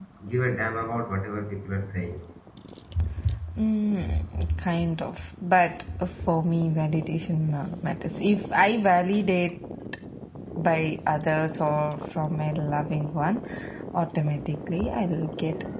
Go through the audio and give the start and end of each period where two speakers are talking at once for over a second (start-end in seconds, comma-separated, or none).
none